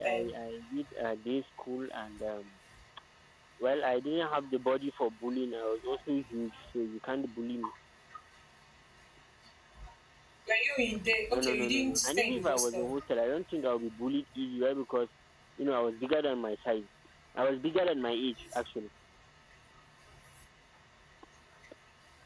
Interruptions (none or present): present